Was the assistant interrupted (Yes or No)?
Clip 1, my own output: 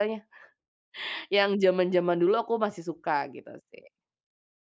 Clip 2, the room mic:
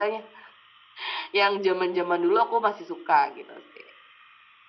No